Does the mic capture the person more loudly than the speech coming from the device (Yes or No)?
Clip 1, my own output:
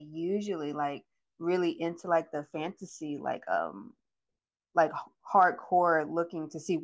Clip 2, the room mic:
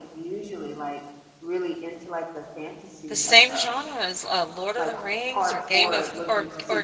Yes